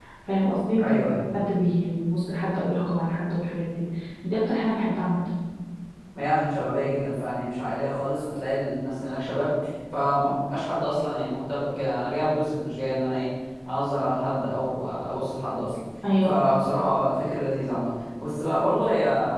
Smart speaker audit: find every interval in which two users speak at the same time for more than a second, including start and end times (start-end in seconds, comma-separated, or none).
none